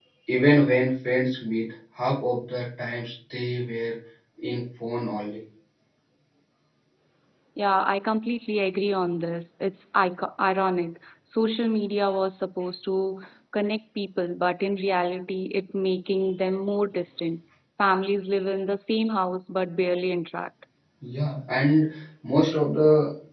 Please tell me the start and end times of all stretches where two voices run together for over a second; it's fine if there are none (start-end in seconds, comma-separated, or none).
none